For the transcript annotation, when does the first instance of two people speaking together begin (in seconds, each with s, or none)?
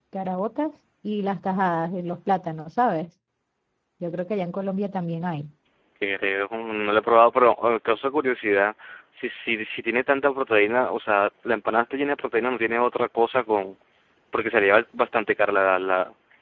none